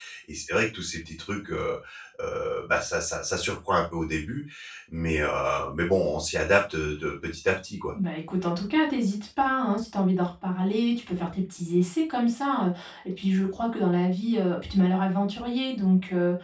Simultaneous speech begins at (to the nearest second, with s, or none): none